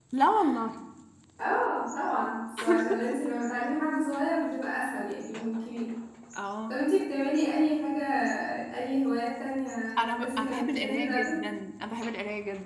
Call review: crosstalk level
present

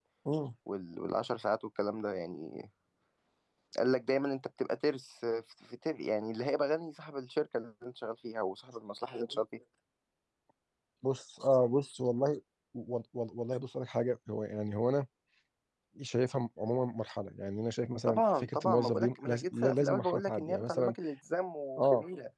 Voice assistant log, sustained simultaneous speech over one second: present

